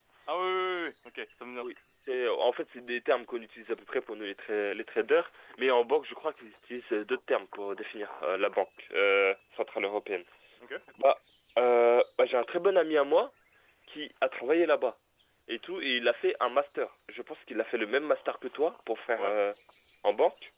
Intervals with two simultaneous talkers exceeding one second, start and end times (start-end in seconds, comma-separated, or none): none